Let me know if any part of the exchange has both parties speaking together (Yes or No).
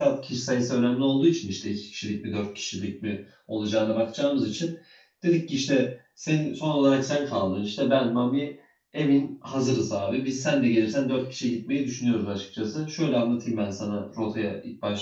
No